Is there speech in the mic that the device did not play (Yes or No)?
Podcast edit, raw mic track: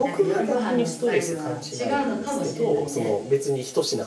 Yes